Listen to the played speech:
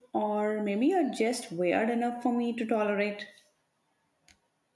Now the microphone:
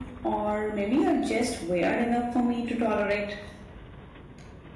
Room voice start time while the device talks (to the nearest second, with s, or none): none